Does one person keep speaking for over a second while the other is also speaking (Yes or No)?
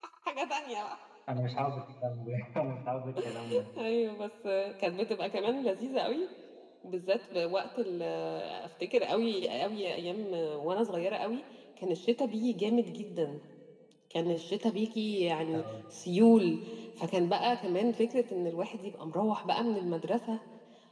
No